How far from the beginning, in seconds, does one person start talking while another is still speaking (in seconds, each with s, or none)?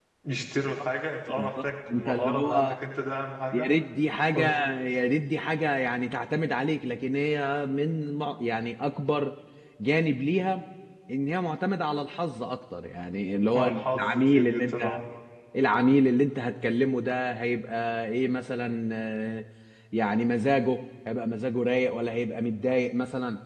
1.3 s